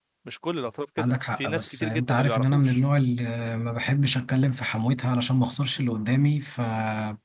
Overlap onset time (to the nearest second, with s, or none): 1 s